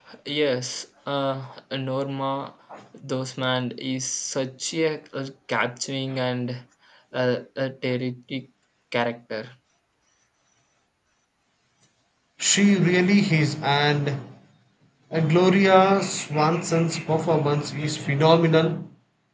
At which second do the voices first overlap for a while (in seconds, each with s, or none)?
none